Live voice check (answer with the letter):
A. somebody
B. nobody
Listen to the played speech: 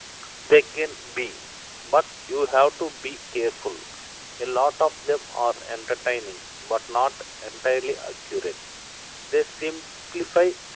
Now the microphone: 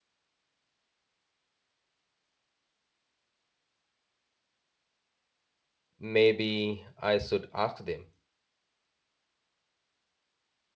A